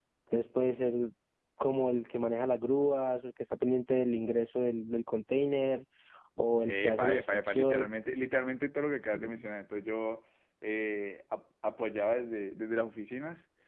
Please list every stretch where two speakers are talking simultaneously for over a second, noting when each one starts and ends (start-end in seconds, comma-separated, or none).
6.6-7.9